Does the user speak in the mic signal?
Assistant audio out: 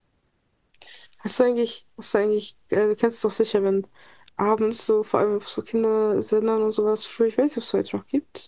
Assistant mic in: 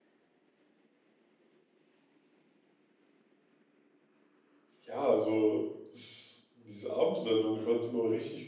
Yes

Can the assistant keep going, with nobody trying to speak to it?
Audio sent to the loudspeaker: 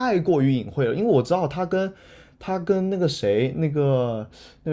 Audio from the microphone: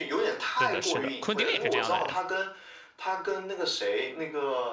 No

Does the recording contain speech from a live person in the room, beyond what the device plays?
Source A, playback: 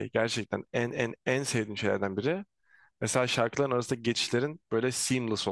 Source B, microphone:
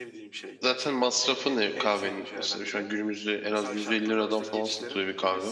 Yes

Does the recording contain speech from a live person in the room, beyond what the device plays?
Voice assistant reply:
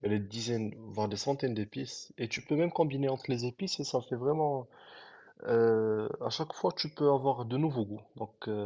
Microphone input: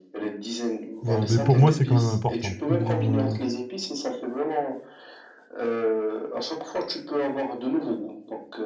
Yes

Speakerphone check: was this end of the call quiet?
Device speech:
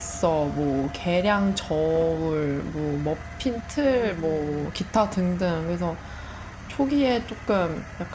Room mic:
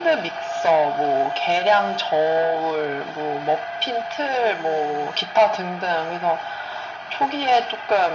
Yes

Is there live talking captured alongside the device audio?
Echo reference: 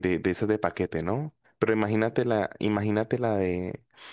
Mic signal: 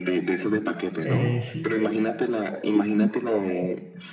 Yes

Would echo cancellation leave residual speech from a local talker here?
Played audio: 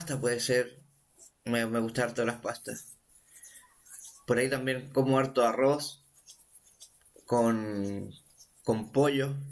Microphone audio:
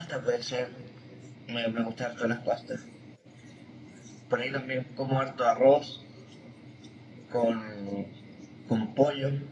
No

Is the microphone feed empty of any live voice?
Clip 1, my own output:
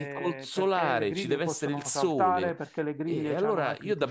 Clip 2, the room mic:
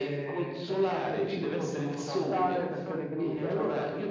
No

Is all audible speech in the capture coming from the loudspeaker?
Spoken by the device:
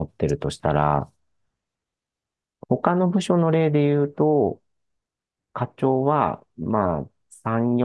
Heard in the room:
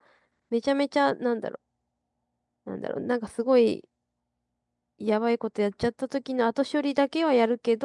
No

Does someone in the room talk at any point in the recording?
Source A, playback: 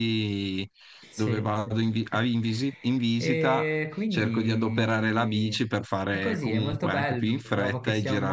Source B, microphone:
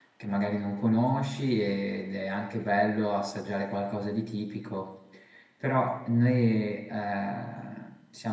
Yes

